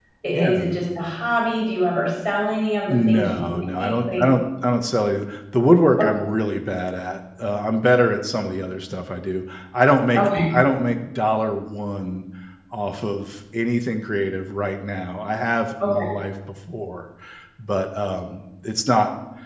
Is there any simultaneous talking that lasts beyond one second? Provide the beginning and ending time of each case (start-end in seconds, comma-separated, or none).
2.9-4.2